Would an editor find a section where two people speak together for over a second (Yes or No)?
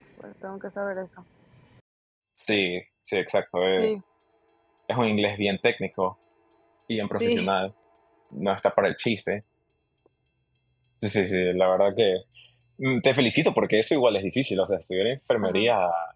No